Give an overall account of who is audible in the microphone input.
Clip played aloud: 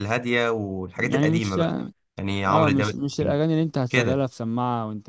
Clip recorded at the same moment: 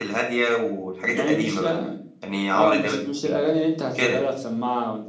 echo only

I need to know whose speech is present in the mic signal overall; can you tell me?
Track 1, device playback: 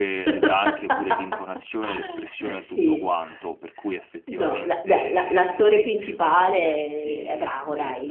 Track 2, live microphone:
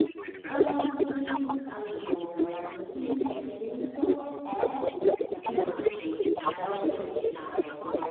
both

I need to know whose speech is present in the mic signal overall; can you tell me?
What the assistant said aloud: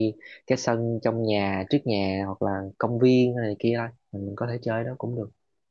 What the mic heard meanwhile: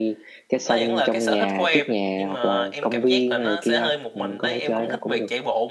both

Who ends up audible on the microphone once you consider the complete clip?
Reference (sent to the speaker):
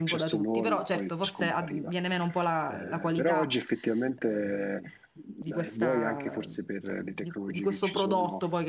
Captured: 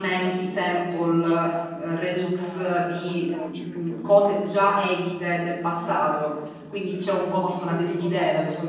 both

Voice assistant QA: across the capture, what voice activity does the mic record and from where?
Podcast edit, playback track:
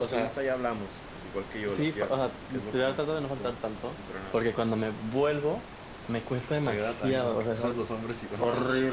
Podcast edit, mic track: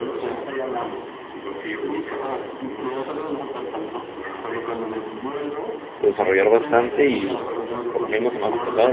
both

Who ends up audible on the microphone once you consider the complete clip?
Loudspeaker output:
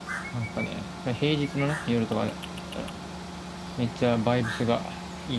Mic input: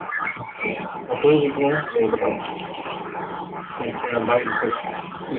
echo only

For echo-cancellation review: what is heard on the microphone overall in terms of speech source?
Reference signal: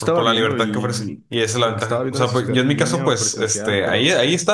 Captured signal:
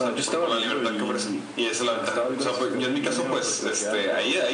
echo only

